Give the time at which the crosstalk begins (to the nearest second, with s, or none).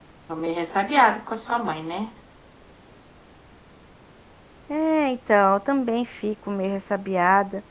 none